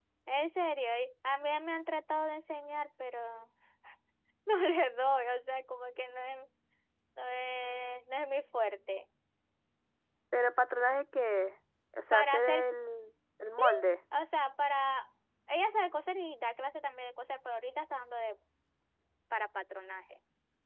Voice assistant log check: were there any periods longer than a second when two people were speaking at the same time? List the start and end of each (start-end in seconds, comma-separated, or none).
none